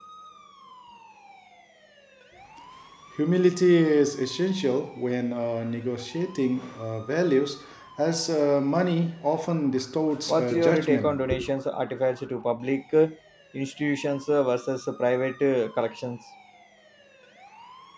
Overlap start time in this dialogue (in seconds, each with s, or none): 10.3 s